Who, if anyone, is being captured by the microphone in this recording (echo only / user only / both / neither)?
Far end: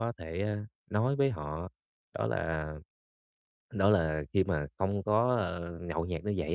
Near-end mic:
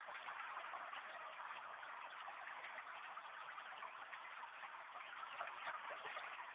neither